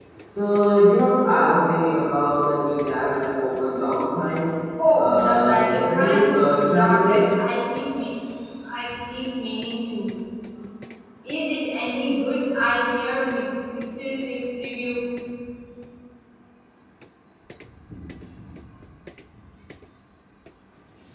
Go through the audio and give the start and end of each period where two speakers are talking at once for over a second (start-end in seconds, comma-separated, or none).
5.0-7.2